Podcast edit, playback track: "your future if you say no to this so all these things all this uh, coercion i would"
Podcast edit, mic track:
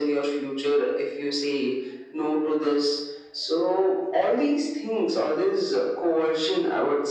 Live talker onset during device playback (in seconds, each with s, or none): none